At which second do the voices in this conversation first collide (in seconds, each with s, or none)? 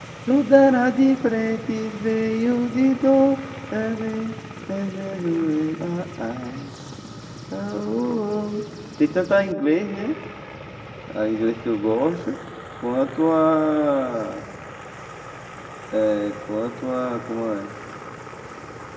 none